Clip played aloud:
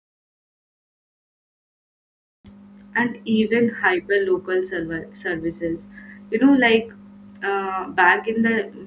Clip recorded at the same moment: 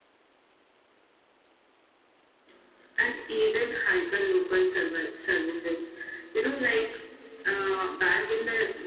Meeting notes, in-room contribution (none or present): none